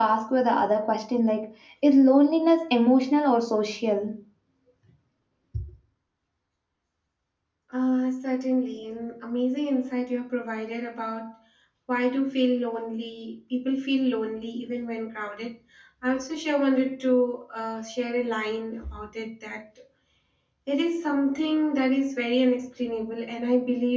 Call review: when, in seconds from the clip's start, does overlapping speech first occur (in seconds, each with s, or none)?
none